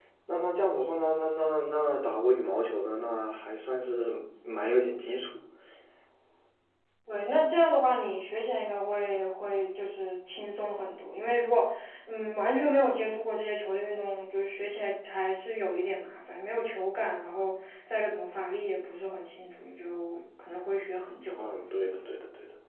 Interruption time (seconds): none

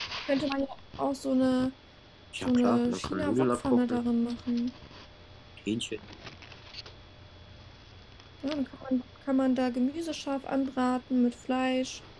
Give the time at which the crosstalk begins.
2 s

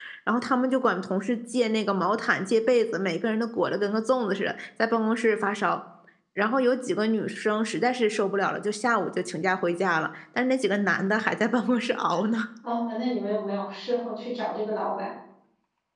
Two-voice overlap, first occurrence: none

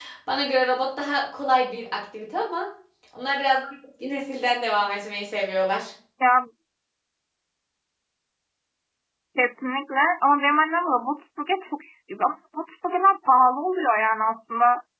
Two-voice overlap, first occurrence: none

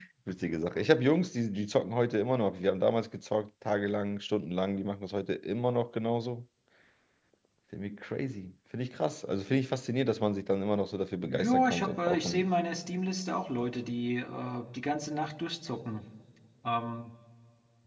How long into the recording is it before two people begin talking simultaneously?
11 s

